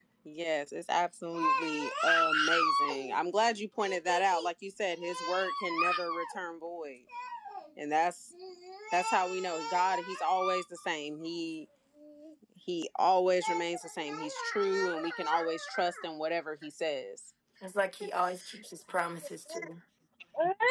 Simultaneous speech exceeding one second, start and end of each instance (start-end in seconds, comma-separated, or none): none